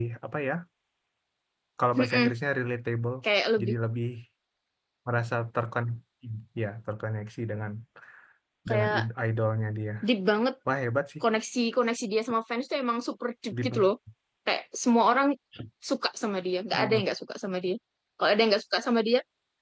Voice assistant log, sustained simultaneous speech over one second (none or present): none